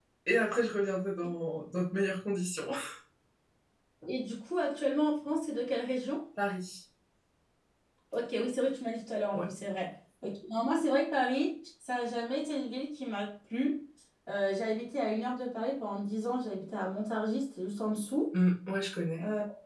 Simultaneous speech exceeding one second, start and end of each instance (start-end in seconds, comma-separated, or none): none